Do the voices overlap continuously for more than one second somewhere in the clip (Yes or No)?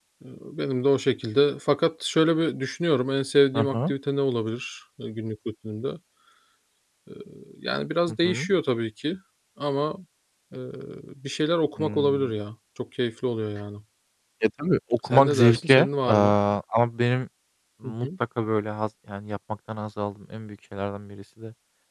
Yes